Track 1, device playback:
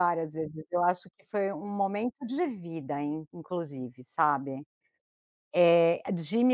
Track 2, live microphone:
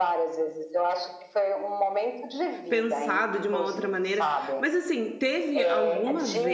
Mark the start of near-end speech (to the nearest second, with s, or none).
3 s